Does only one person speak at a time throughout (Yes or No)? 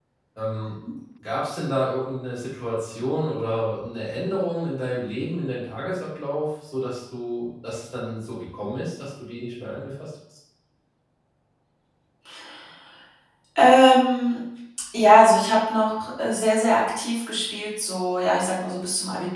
Yes